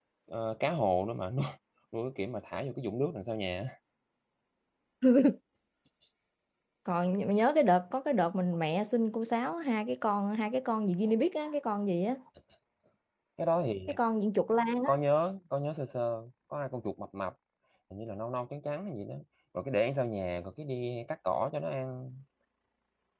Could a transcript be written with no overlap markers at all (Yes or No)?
Yes